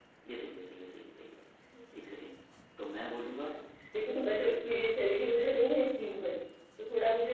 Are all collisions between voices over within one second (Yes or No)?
Yes